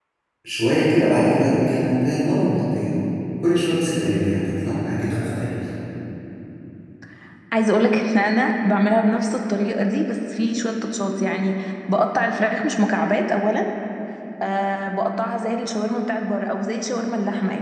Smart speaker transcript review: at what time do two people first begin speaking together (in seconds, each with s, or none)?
none